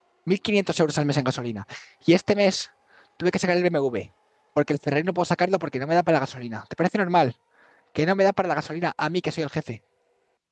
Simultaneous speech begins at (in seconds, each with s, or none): none